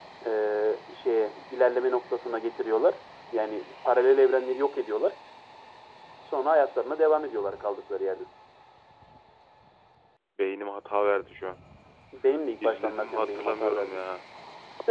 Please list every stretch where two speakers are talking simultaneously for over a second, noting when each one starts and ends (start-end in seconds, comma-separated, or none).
12.6-14.0